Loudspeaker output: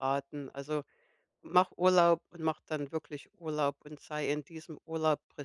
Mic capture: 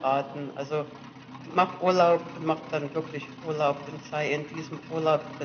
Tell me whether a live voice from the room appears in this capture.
No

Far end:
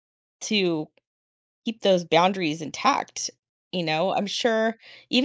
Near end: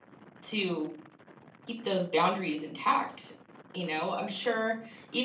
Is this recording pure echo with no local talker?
Yes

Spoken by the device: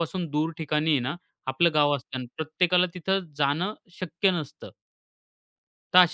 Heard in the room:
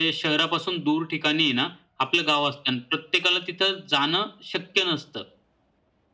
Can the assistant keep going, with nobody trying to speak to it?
Yes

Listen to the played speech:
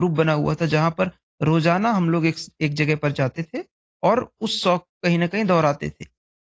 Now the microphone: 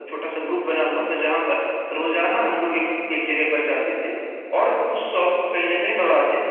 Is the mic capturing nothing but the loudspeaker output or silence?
Yes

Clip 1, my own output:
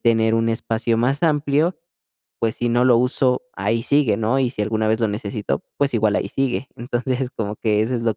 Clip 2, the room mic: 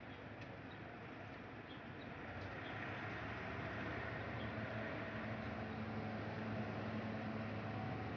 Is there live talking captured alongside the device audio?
No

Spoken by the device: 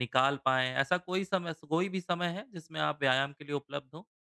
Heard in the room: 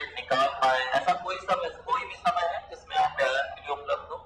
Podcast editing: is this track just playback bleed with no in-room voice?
Yes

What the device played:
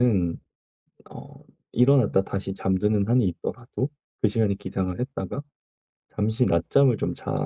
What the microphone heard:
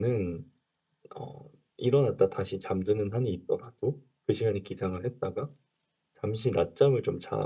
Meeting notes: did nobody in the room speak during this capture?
Yes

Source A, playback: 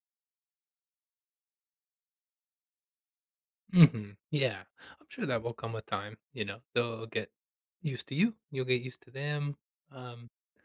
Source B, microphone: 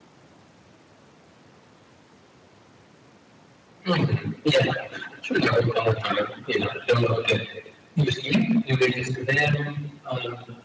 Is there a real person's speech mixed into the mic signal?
No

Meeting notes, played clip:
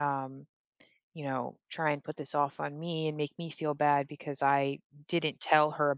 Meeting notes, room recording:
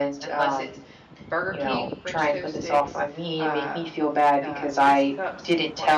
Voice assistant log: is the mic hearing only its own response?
No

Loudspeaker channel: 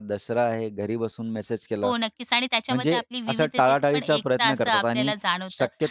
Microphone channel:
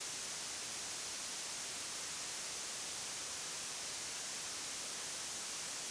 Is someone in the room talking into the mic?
No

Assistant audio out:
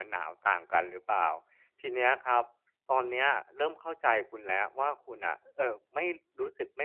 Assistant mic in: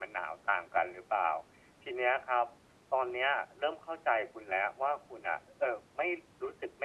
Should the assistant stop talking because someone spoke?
No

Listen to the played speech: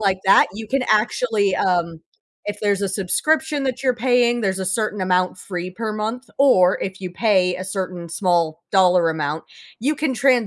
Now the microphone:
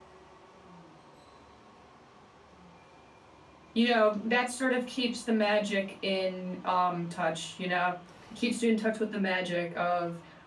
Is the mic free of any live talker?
No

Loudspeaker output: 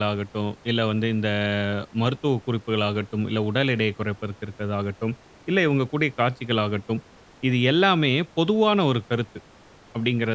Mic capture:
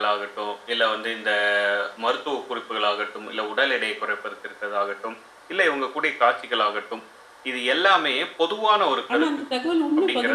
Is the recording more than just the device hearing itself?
Yes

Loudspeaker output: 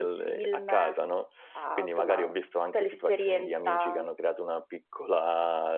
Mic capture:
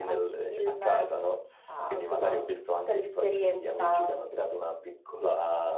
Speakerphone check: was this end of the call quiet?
Yes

